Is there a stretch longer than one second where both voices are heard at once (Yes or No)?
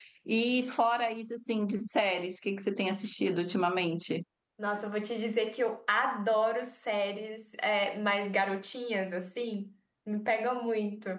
No